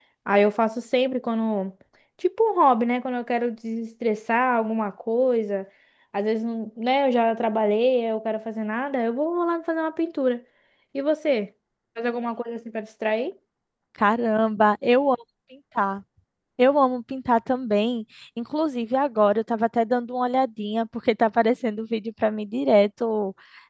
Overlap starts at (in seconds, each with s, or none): none